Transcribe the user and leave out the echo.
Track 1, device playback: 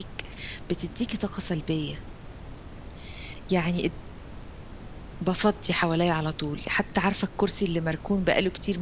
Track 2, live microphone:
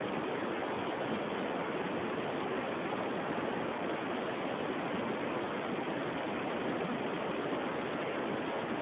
none

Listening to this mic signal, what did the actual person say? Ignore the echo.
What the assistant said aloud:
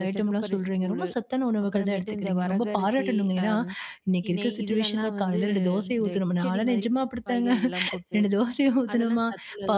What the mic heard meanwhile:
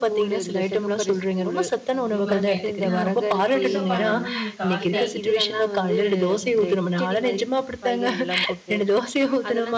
கண்டிப்பாங்க. எனக்குதான் புதுசு, புதுசா பண்ணணுனு எனக்கு ஆச

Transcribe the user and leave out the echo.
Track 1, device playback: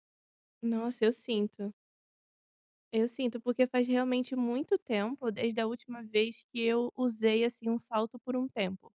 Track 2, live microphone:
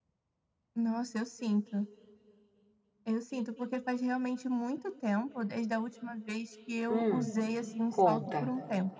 Hum, conta.

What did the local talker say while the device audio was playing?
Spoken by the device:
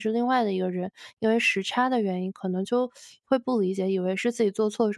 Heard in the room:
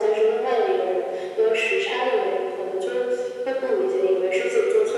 none

